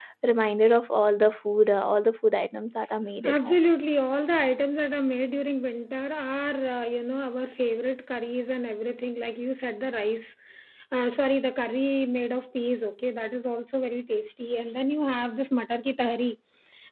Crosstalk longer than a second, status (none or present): none